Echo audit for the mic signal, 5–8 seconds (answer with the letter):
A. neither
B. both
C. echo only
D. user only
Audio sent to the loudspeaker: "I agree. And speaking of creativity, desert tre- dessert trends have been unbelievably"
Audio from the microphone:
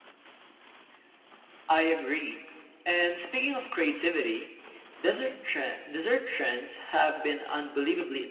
C